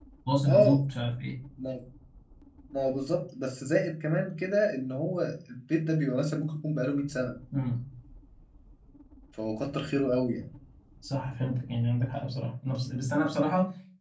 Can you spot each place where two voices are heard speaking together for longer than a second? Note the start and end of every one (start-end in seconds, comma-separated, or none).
none